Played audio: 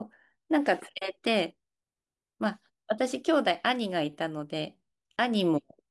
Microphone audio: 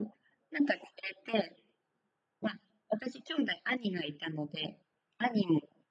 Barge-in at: none

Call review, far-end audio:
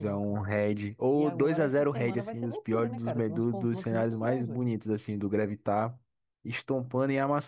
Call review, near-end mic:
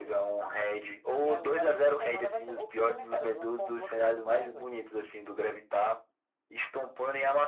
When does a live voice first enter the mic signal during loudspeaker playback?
none

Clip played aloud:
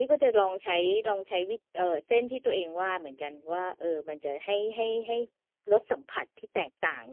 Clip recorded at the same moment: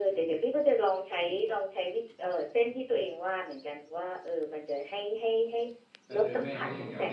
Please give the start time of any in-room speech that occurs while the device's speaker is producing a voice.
6 s

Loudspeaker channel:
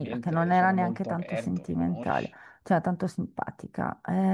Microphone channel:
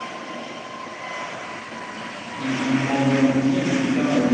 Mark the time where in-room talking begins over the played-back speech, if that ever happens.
2 s

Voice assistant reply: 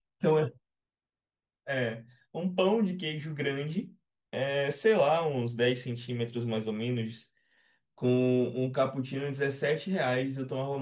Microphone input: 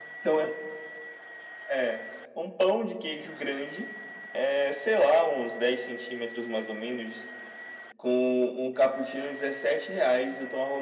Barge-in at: none

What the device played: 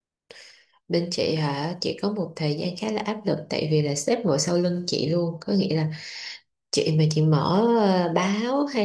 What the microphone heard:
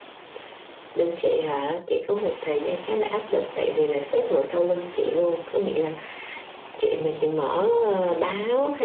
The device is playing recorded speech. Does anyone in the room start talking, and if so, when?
none

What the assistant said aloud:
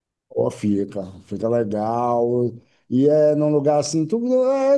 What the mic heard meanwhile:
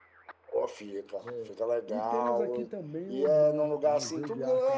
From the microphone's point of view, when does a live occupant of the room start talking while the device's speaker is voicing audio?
1 s

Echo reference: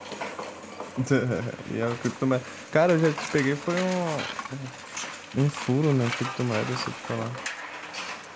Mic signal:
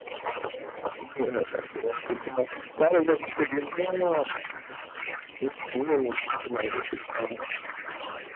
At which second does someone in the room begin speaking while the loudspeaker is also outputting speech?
none

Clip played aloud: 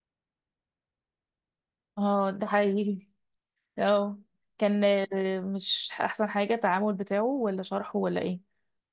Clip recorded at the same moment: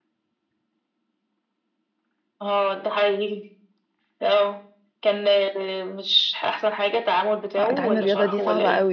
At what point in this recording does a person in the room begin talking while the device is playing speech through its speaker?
8 s

